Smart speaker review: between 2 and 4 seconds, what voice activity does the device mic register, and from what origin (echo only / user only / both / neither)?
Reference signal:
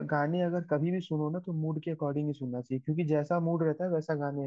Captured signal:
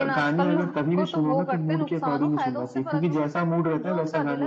both